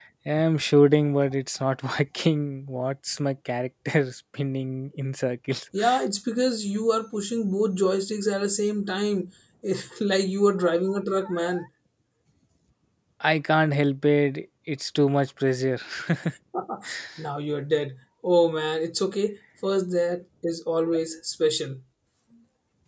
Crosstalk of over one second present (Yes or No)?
No